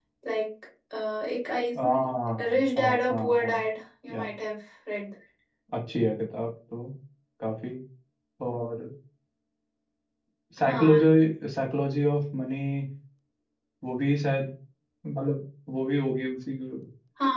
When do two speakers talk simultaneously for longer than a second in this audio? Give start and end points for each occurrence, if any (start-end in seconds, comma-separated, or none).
2.4-3.6